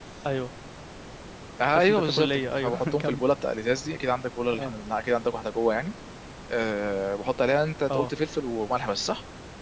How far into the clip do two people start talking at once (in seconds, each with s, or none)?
1.8 s